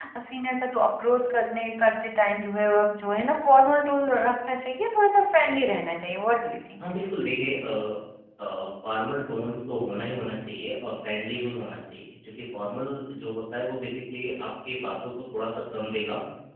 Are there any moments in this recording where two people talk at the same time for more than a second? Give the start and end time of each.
none

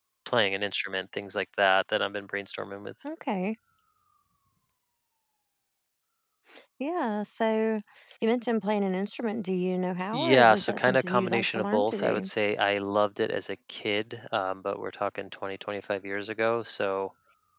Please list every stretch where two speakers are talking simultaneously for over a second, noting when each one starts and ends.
10.1-12.3

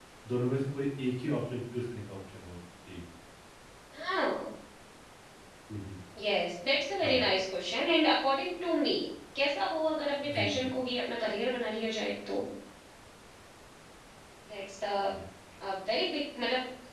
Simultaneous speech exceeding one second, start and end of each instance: none

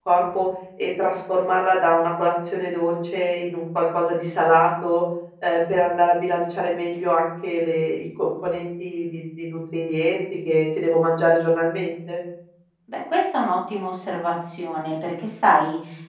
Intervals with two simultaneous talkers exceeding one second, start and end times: none

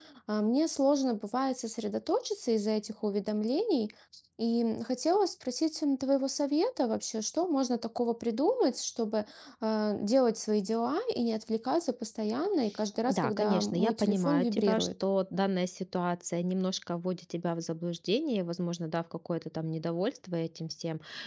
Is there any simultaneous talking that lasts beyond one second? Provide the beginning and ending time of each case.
13.1-14.9

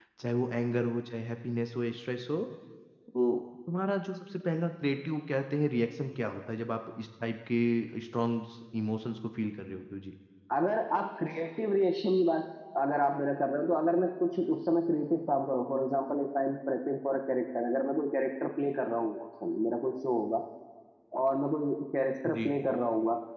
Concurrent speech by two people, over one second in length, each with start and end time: none

